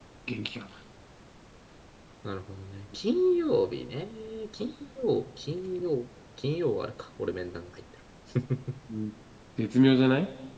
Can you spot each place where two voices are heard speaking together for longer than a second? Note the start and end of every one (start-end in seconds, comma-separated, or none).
none